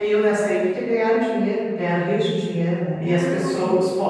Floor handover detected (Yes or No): No